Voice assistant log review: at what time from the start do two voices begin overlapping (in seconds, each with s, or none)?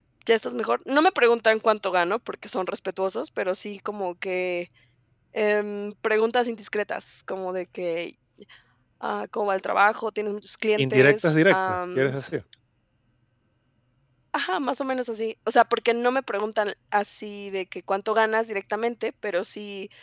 10.8 s